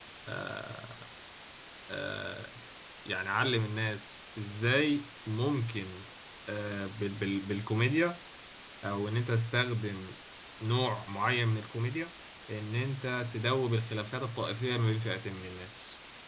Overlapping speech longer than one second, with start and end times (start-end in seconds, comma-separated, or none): none